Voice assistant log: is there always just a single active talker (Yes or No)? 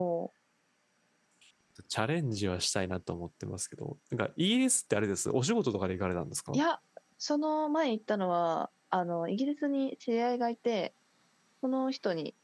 Yes